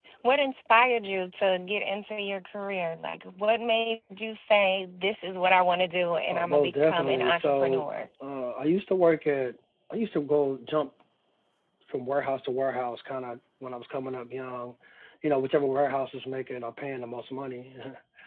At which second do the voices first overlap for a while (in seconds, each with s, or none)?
6.3 s